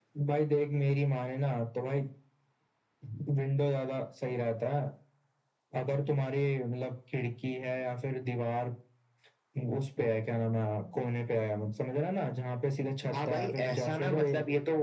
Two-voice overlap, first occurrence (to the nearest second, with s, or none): 13 s